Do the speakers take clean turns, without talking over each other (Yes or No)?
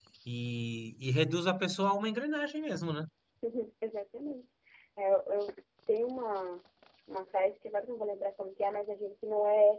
Yes